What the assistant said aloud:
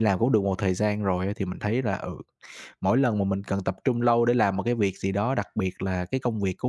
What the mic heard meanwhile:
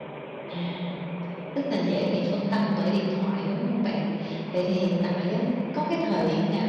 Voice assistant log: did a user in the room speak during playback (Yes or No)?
Yes